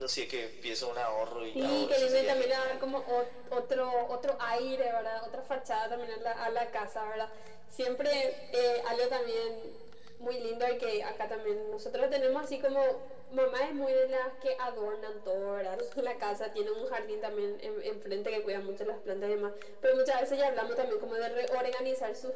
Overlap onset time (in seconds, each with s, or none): 1.6 s